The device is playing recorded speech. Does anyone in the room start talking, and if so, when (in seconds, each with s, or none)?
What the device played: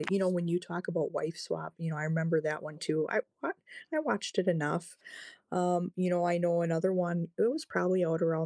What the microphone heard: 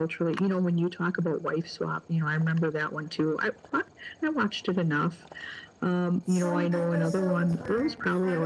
6.2 s